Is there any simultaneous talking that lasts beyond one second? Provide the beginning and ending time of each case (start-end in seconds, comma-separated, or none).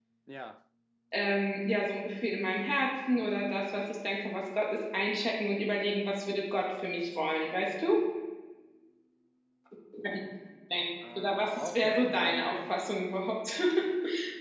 11.2-12.8